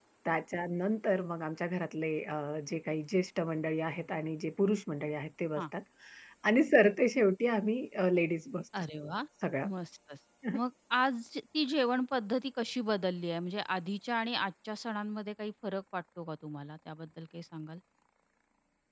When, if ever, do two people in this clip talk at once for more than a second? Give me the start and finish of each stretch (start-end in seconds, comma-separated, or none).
none